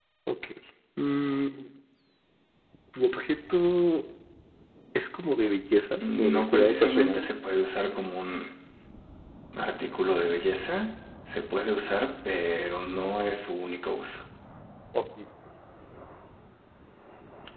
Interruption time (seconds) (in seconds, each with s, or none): 6.0 s